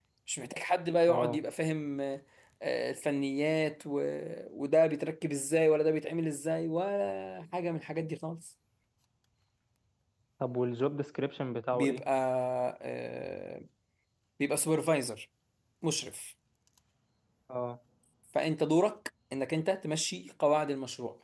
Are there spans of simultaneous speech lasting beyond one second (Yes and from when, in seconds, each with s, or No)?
No